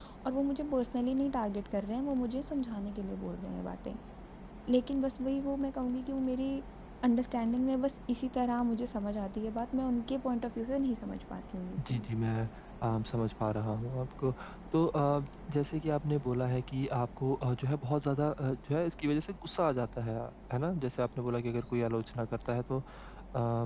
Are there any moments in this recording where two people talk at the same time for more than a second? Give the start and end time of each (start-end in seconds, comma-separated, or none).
none